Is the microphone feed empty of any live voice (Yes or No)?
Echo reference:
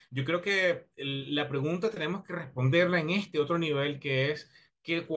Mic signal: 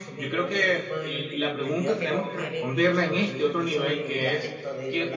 No